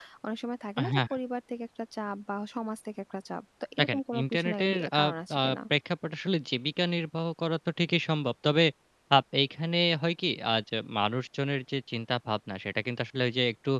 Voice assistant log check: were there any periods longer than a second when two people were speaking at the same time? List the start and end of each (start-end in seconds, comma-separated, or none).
3.8-5.0